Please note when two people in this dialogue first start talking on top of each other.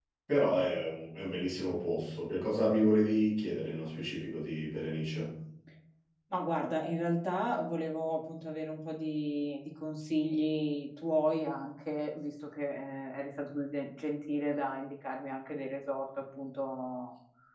none

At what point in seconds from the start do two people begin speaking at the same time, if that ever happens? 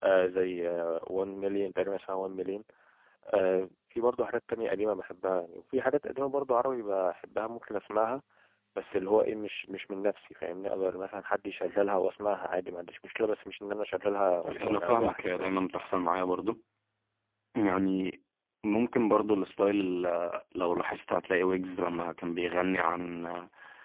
14.4 s

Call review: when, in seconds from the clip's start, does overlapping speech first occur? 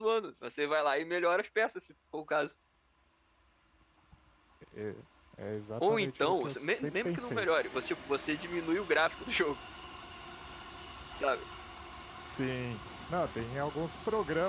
5.8 s

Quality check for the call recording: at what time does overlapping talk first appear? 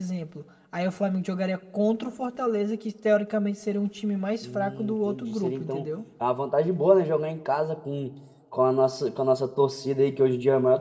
4.4 s

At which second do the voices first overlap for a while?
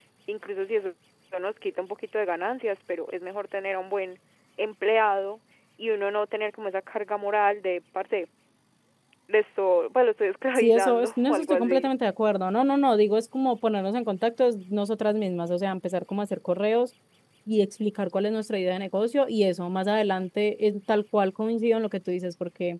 10.6 s

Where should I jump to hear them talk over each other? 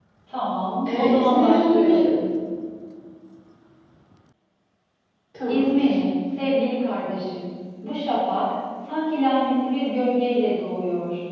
0.9 s

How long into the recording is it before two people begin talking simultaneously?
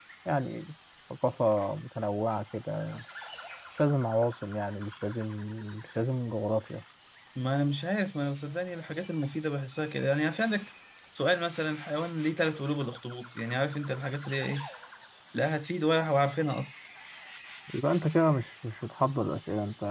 none

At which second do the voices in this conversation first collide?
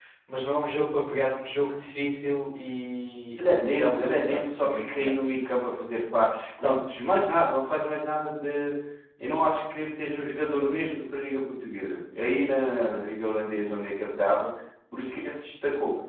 3.4 s

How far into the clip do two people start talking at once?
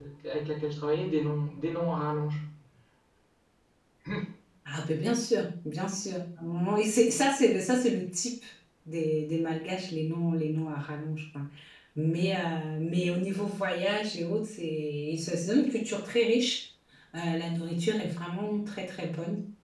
none

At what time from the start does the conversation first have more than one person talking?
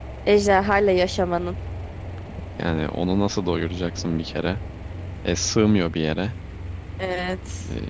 none

